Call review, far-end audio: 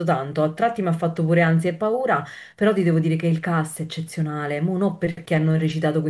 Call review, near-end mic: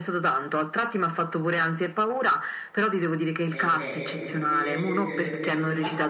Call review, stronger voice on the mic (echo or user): echo